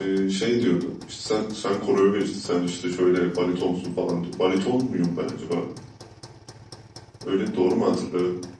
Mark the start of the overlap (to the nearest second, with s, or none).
none